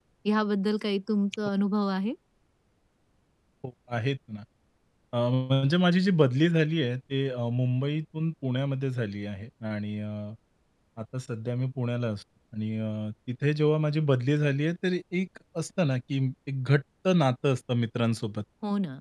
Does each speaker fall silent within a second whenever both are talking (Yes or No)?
Yes